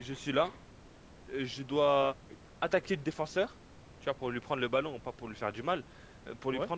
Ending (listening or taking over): listening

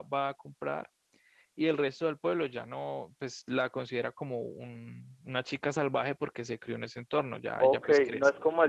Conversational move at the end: taking over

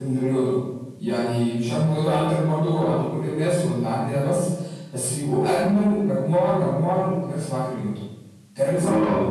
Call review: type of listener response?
taking over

